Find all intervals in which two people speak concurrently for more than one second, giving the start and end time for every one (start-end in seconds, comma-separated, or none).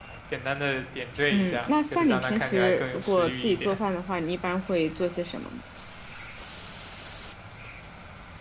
1.3-3.8